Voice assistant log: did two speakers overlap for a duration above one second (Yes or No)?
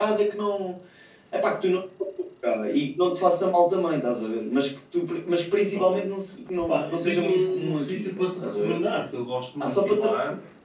Yes